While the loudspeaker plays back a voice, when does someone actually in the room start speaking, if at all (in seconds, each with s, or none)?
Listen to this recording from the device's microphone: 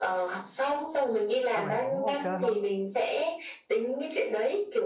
1.5 s